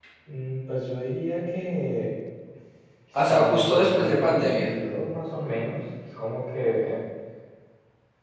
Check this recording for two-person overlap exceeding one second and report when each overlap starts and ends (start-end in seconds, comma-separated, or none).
3.3-4.7